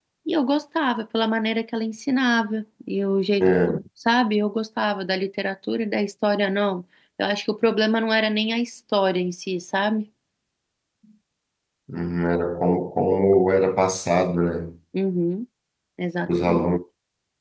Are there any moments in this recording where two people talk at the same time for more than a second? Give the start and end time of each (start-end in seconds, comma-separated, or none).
none